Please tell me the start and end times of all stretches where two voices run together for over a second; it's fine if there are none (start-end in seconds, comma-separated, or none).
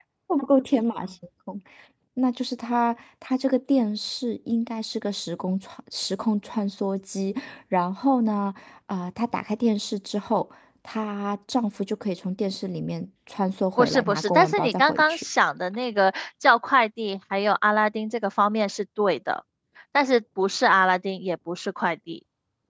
13.8-15.2